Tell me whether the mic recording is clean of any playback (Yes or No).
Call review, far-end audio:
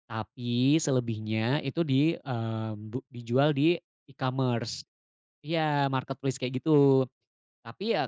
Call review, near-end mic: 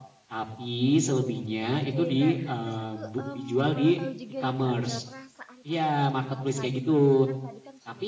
No